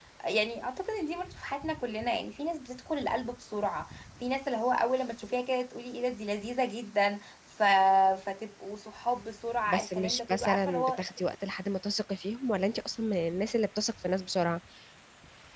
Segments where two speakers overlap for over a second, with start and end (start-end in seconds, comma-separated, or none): 9.7-11.0